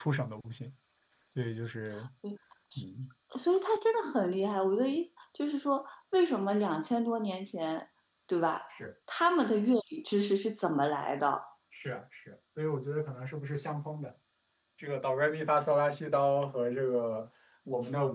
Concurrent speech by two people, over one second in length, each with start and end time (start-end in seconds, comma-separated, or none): none